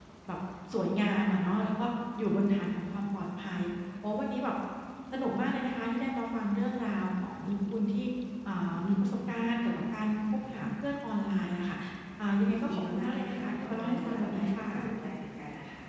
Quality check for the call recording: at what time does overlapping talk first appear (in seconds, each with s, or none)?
12.5 s